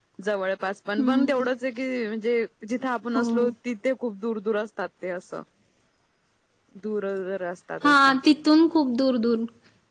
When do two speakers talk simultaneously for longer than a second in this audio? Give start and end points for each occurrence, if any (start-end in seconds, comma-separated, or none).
none